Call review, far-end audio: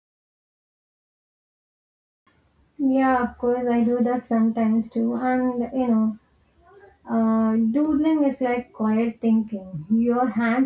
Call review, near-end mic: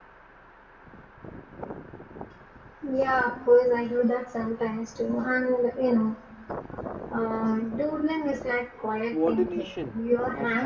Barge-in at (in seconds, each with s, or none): 9.0 s